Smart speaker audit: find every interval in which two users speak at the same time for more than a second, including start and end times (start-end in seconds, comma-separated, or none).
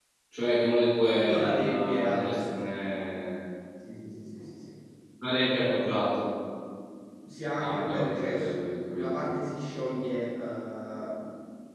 1.2-2.6, 7.5-9.4